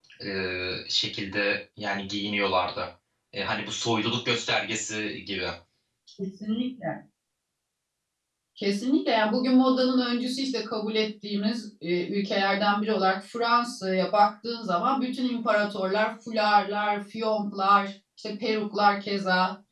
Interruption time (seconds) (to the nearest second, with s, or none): none